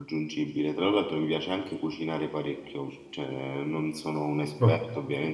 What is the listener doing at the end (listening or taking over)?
listening